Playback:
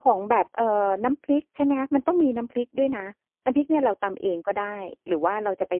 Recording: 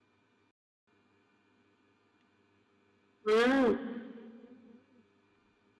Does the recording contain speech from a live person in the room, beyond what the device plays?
Yes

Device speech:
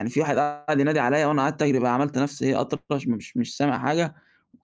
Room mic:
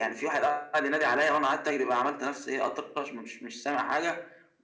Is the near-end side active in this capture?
No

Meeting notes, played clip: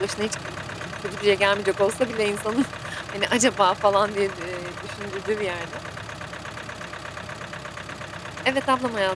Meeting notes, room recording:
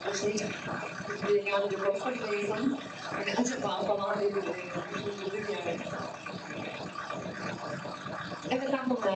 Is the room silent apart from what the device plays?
Yes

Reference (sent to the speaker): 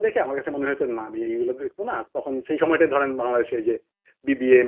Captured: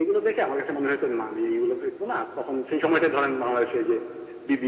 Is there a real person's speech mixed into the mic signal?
No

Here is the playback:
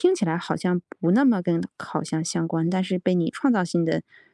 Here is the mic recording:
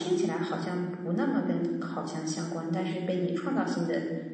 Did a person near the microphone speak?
No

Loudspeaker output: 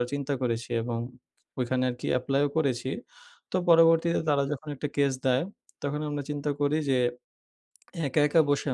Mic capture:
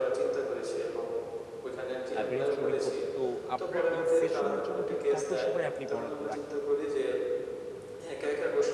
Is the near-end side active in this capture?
Yes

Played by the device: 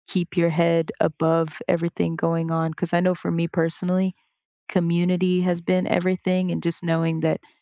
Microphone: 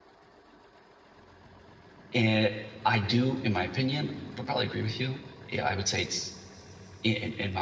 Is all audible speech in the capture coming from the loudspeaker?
No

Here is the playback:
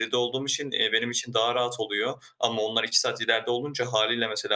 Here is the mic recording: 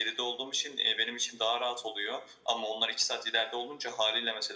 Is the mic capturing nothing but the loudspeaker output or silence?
Yes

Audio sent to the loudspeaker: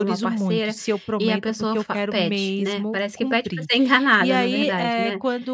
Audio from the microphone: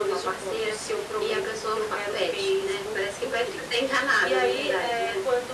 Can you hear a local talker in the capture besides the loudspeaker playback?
No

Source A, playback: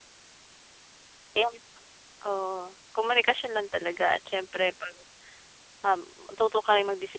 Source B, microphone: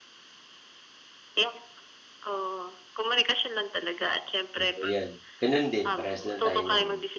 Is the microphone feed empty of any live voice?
No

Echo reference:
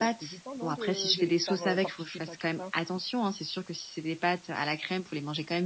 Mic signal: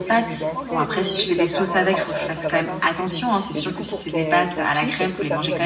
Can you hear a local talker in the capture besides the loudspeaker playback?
Yes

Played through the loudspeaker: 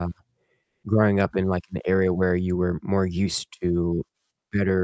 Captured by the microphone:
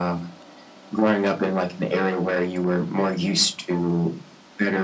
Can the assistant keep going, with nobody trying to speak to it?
Yes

